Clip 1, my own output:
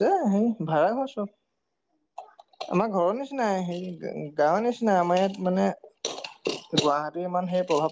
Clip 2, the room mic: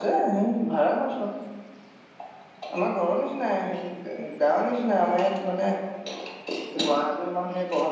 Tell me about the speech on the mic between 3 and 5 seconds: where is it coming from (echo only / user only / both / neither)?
echo only